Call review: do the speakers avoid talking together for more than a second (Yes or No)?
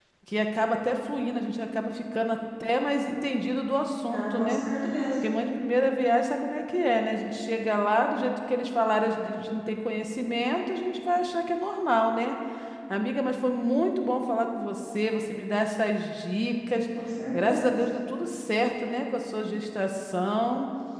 Yes